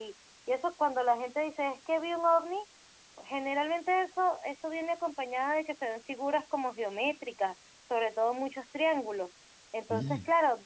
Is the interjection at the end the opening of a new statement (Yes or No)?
No